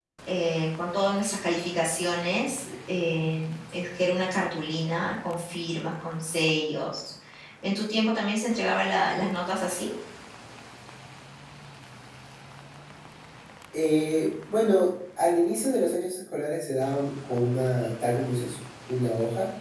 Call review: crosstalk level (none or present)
none